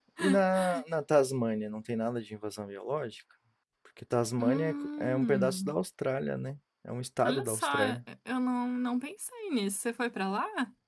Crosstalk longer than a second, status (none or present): present